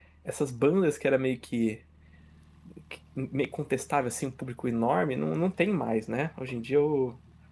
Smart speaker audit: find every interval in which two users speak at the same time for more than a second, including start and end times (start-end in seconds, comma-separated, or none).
none